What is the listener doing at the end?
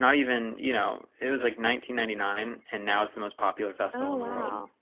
taking over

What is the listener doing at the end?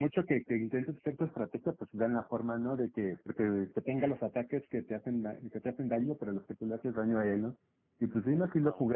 listening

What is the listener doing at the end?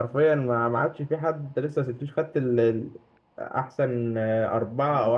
taking over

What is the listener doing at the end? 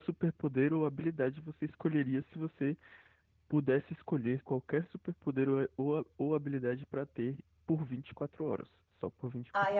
taking over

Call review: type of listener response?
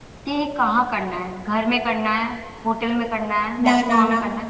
taking over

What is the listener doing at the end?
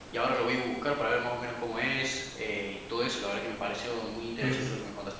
taking over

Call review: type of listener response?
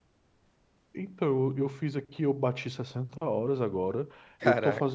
listening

